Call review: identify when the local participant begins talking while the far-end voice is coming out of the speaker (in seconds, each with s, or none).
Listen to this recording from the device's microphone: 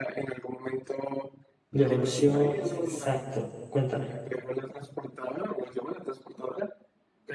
1.7 s